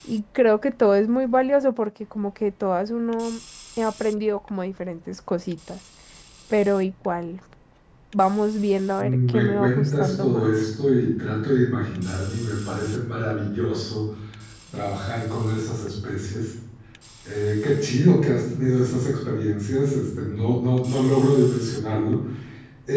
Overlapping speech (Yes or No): Yes